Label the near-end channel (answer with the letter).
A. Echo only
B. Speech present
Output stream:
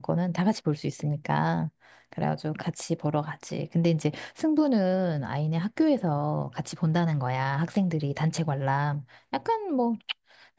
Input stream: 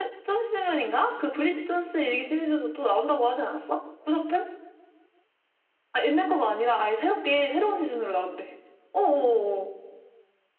B